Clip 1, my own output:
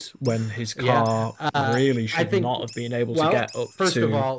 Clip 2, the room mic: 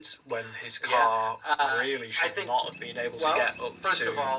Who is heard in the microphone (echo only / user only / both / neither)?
echo only